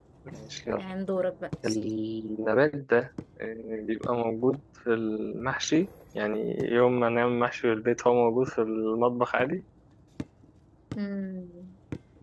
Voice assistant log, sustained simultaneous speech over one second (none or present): none